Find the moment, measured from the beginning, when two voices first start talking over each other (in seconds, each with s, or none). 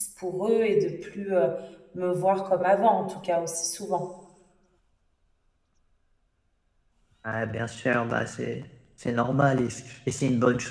none